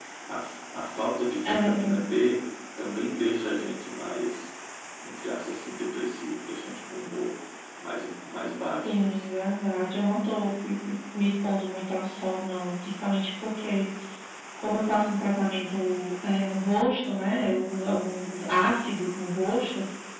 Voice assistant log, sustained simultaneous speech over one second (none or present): none